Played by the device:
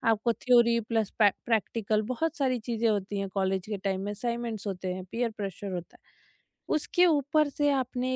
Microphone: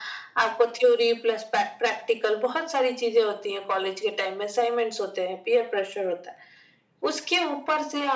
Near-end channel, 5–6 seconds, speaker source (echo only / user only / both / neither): echo only